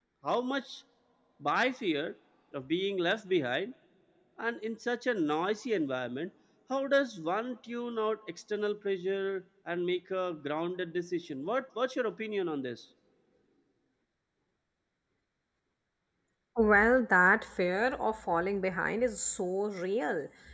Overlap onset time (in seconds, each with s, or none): none